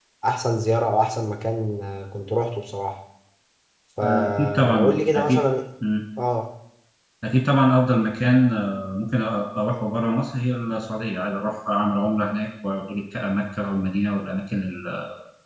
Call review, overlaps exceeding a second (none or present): present